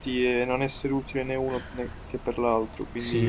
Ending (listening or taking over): taking over